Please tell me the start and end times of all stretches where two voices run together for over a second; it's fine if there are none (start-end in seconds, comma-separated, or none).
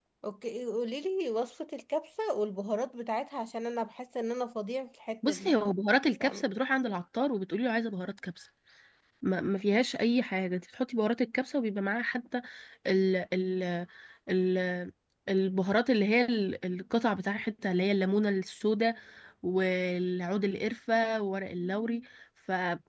none